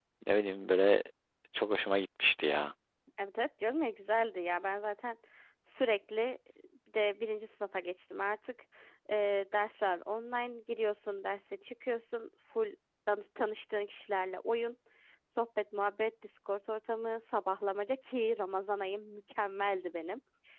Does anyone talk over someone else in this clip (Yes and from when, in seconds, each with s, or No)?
No